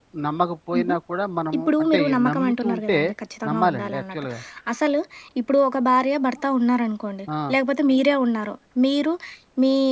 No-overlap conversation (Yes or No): No